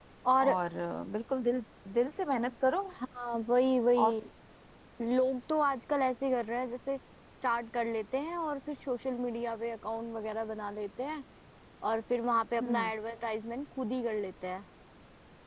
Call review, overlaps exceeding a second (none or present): none